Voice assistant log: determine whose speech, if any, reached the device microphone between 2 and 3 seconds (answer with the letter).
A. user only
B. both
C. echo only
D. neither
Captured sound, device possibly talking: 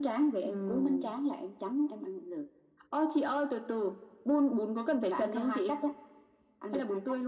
C